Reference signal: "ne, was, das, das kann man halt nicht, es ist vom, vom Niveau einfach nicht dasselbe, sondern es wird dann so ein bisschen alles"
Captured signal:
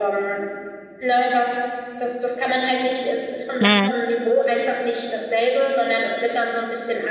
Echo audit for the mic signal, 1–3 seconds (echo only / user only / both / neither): echo only